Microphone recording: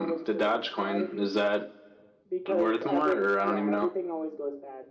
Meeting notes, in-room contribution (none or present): none